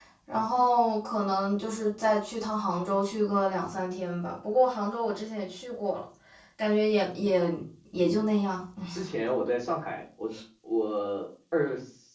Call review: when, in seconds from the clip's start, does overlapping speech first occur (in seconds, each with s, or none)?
none